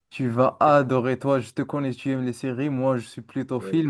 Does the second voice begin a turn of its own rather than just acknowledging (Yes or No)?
No